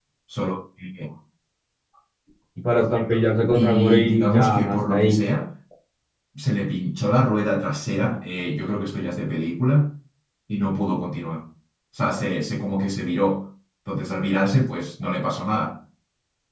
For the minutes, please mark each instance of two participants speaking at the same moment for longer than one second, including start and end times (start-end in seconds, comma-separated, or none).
3.5-5.2